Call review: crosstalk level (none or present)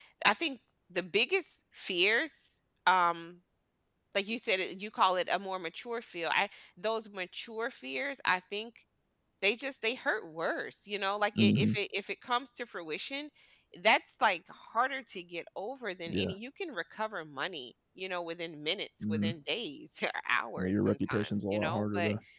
present